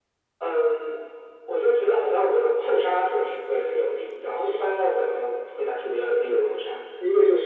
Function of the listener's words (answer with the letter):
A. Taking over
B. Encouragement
A